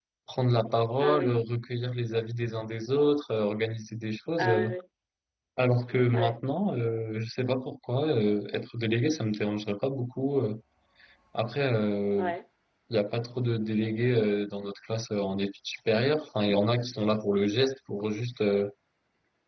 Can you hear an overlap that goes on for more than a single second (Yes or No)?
No